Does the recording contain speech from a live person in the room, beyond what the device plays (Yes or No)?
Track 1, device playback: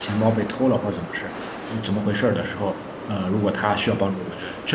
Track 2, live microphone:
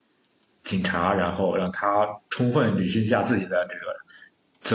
Yes